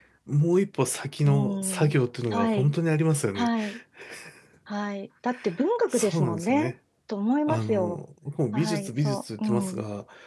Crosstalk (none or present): present